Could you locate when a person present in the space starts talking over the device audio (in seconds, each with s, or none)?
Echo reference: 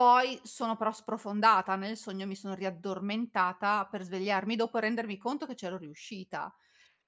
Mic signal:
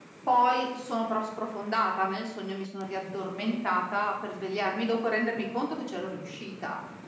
none